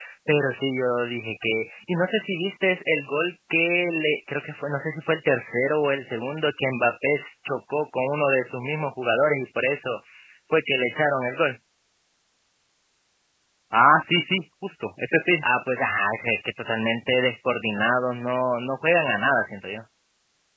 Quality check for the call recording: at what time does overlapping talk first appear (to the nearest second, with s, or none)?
none